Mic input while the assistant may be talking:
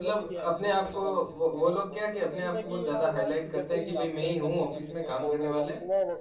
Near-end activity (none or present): present